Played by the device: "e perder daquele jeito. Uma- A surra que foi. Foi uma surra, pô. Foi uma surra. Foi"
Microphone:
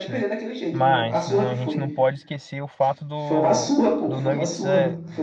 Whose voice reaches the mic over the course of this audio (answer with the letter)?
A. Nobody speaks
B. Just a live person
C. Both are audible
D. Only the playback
C